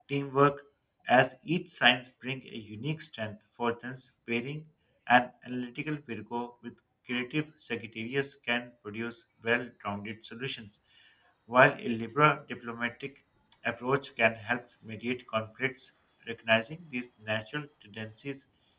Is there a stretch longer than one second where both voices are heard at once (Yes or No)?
No